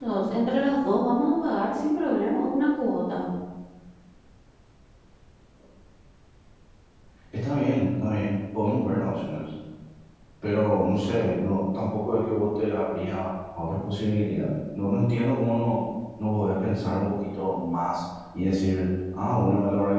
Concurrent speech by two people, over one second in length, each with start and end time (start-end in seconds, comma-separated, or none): none